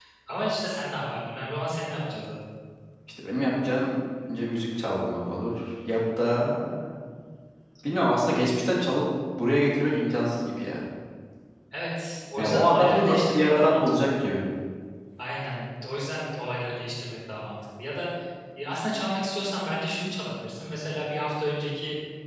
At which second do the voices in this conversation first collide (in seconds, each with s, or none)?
12.4 s